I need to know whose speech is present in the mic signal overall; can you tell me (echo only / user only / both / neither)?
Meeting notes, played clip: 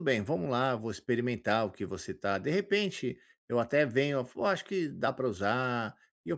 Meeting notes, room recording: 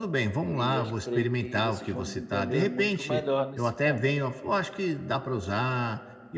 both